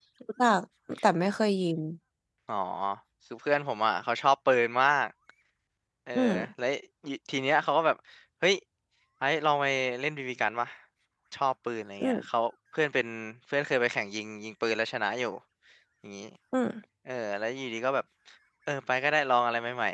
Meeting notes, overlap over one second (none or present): none